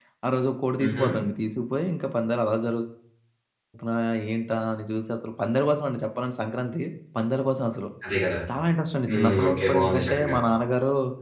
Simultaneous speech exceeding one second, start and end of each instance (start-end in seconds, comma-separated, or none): 9.1-10.3